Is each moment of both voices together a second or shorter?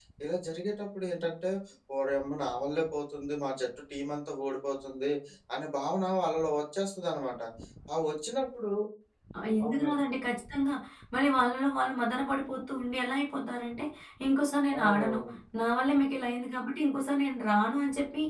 Yes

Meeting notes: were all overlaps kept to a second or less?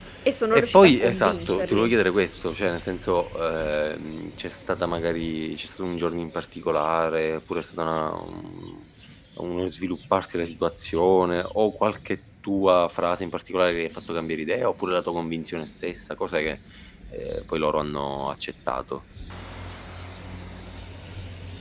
No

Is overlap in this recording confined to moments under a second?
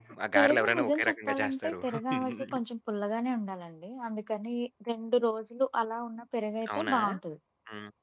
No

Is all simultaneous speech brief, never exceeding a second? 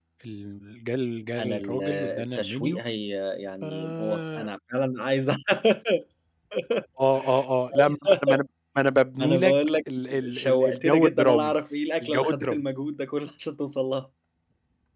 No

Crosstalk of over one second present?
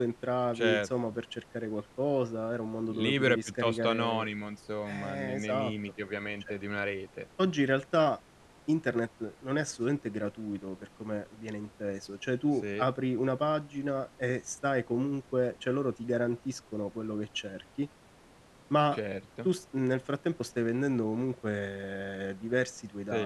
Yes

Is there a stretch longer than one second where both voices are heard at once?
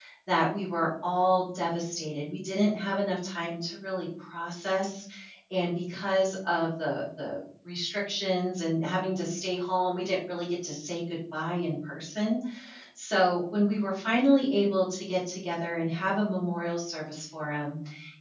No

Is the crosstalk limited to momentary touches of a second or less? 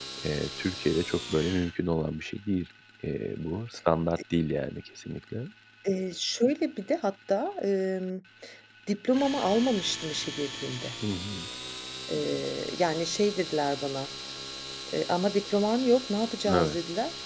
Yes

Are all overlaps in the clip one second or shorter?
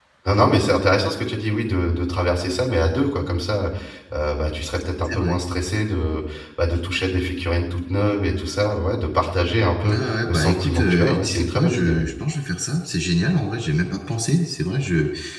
No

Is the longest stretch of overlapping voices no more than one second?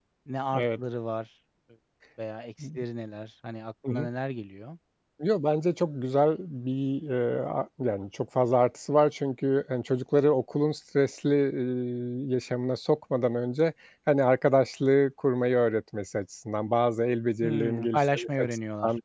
No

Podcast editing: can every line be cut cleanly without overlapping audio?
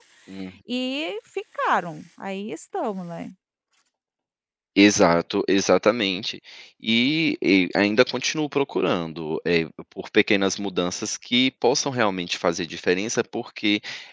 Yes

